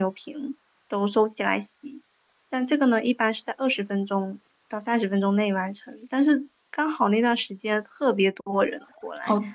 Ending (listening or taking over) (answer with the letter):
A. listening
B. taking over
B